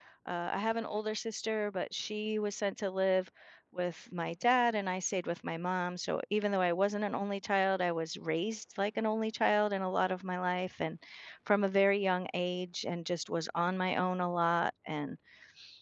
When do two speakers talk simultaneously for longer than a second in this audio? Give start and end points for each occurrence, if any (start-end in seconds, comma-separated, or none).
none